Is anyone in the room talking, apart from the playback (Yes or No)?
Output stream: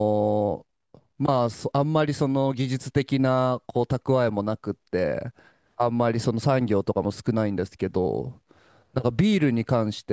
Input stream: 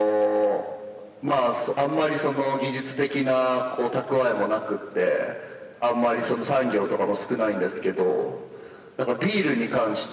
No